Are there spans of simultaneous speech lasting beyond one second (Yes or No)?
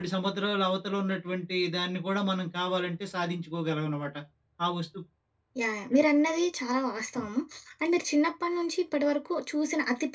No